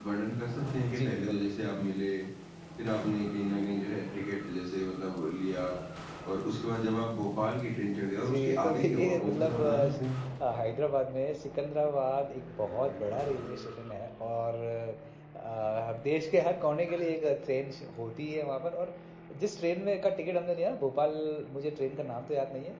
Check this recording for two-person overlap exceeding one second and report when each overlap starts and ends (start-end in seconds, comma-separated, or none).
8.2-10.0